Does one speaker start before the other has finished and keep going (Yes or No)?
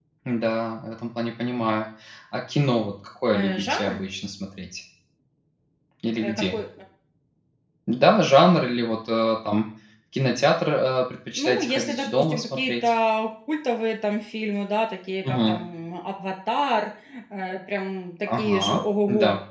Yes